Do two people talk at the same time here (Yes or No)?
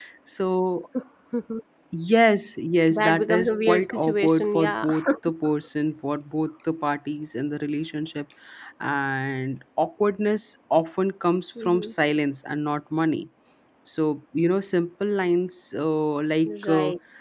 Yes